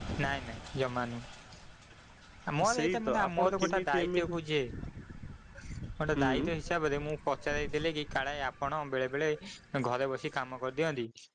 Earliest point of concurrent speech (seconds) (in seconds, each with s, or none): 2.7 s